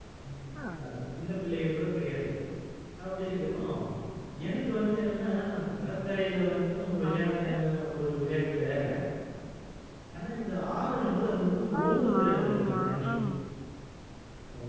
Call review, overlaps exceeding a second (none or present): present